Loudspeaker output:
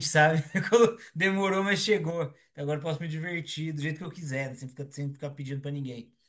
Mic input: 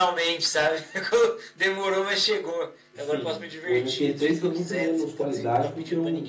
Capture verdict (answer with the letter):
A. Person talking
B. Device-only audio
A